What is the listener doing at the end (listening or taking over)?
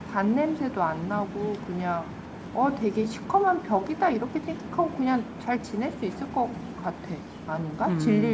taking over